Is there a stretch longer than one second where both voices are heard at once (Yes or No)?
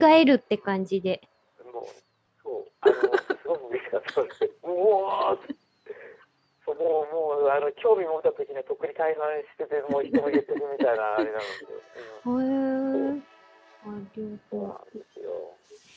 No